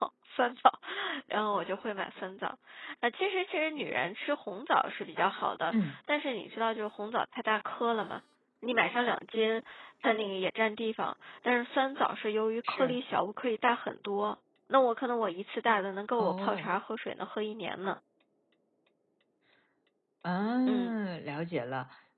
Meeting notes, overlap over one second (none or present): none